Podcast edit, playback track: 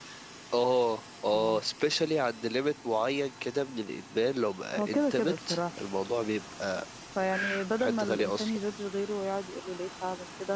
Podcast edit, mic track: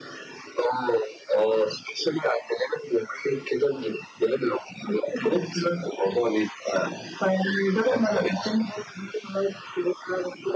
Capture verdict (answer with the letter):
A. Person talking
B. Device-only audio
B